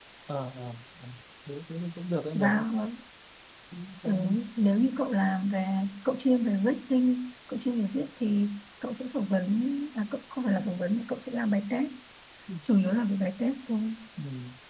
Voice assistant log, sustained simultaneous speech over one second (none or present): none